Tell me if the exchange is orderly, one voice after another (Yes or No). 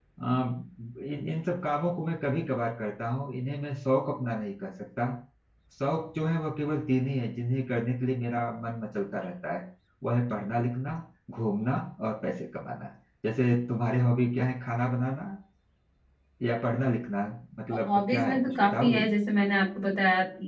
No